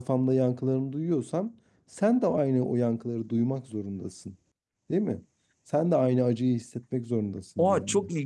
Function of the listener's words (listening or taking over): taking over